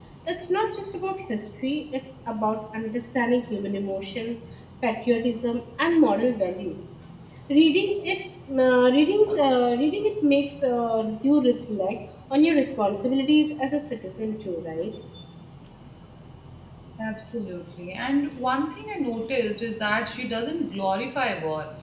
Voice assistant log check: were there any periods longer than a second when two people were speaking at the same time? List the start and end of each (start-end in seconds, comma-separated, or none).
none